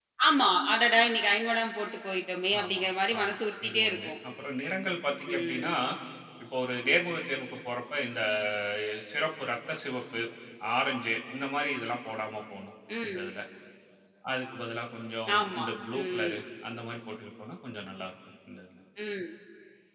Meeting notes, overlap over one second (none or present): present